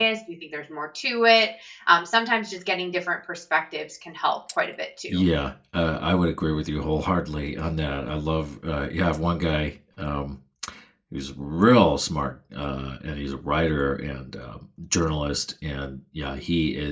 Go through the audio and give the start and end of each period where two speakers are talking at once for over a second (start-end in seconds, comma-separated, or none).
none